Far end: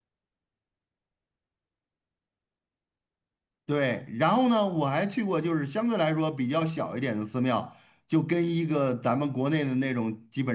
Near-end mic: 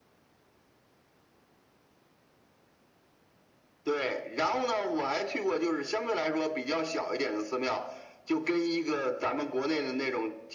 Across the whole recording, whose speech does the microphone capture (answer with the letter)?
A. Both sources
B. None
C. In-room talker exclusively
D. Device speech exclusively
D